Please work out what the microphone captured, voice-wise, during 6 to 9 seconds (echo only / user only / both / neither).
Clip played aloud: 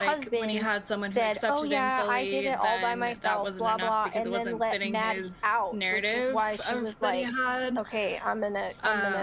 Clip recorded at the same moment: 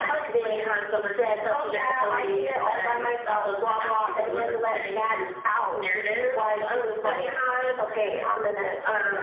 echo only